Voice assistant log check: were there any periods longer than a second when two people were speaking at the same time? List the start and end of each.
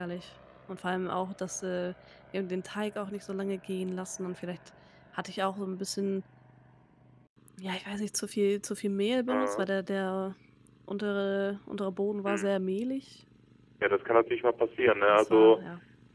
none

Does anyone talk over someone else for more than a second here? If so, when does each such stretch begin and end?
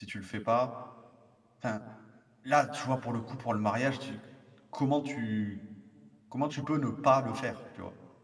none

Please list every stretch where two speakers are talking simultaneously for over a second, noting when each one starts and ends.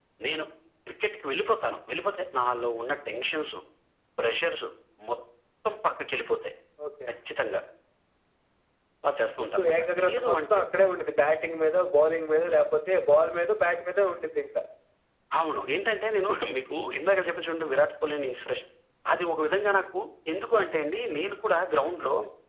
9.4-10.6

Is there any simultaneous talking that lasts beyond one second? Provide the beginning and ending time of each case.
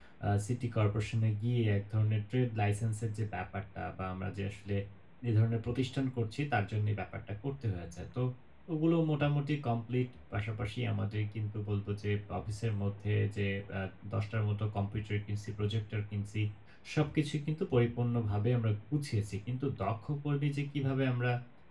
none

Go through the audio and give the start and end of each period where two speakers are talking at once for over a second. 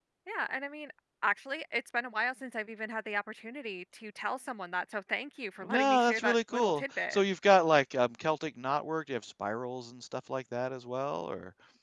5.6-7.2

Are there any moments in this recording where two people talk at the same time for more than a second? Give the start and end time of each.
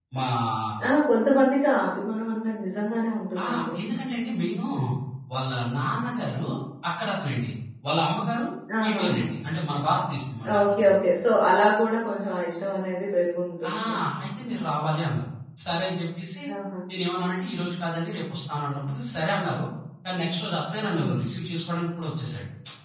none

